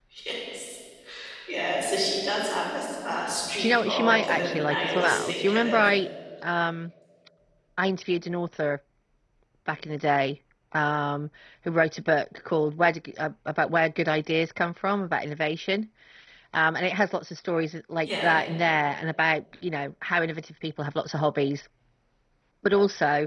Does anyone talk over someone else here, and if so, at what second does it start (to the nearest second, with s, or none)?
4 s